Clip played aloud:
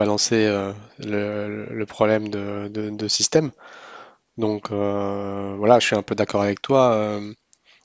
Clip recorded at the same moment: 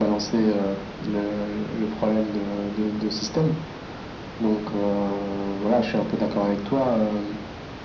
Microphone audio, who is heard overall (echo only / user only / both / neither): echo only